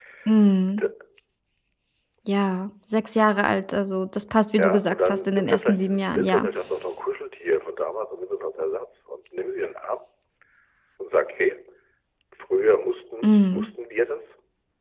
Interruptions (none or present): present